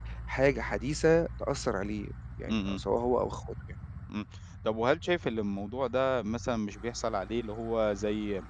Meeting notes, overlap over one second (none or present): none